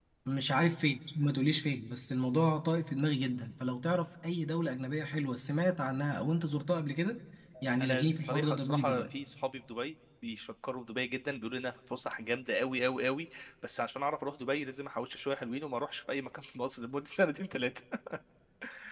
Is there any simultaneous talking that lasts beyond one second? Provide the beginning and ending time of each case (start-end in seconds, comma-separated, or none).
7.8-9.1